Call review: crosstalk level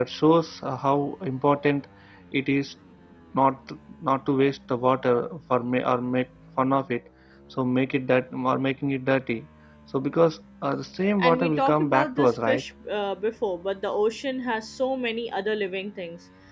present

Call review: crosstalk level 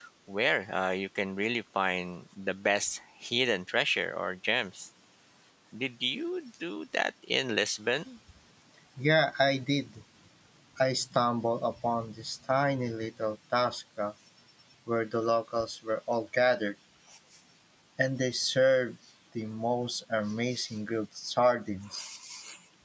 none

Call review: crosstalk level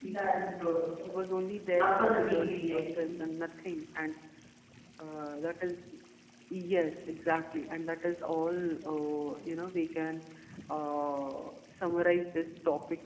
present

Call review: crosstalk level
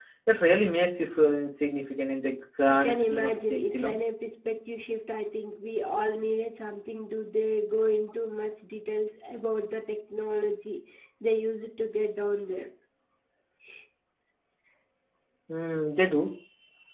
present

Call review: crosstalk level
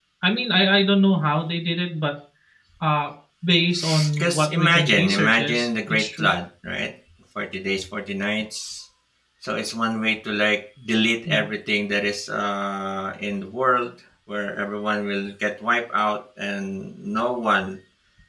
present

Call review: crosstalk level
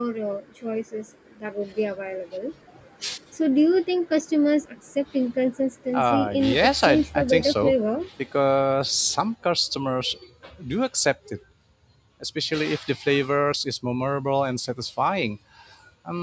present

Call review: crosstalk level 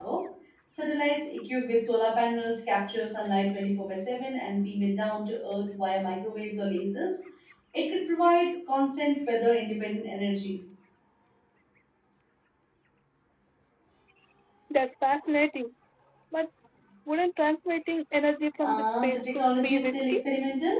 present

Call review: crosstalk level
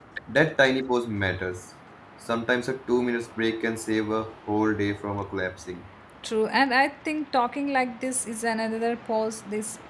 none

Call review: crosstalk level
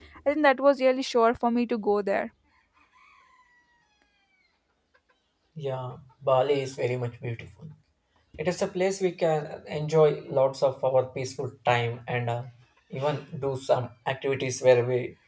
none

